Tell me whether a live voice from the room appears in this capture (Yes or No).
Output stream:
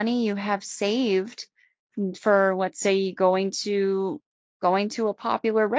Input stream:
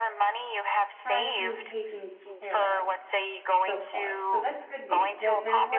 Yes